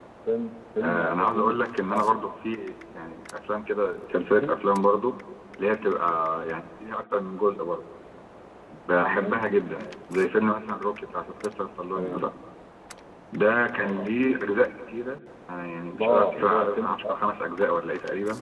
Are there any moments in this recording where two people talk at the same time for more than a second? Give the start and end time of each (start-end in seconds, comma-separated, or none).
0.8-2.4, 15.9-17.1